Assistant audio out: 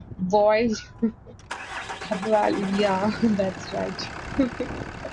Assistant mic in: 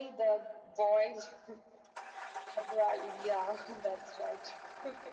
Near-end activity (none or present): none